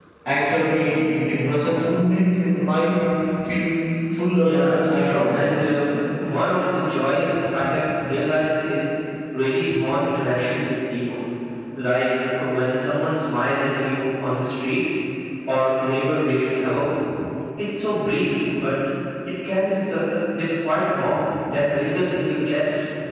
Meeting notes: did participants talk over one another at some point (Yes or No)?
Yes